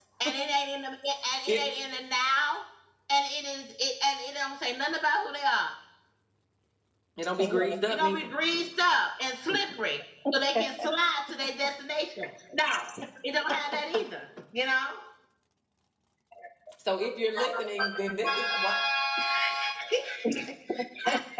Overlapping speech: Yes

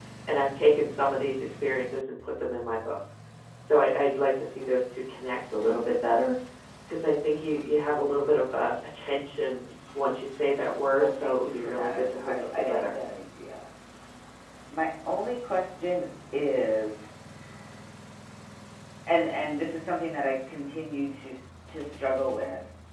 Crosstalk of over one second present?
Yes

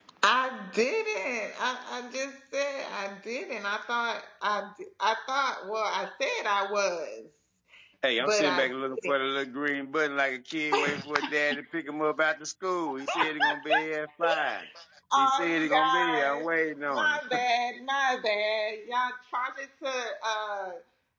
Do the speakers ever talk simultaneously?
Yes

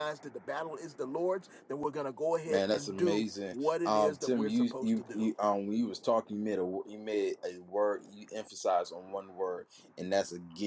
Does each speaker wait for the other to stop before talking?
No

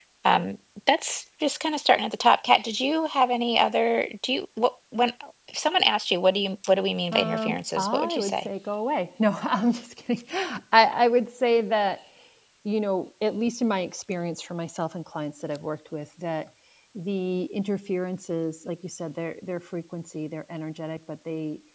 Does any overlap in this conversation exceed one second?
Yes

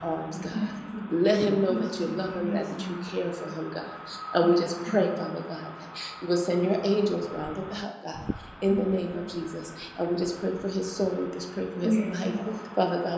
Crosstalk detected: Yes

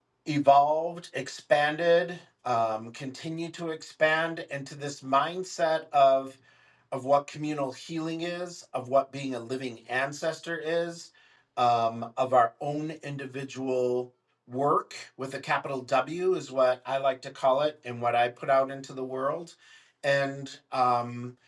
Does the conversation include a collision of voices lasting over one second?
No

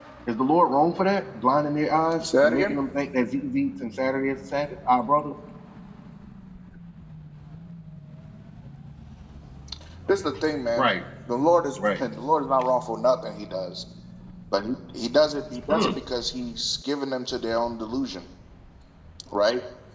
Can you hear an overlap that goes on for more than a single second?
No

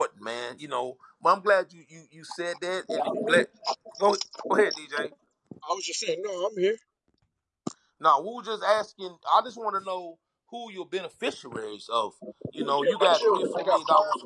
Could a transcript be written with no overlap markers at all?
No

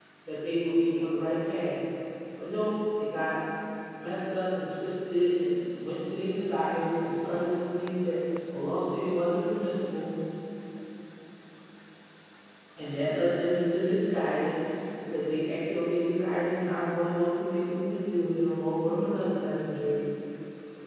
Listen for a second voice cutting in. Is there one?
No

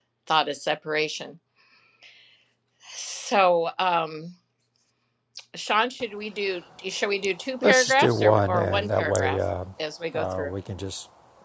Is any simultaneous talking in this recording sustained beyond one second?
Yes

